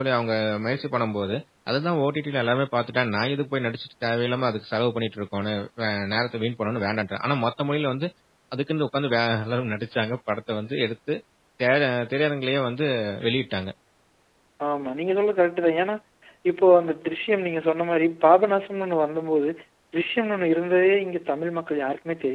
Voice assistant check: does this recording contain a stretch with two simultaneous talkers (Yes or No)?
No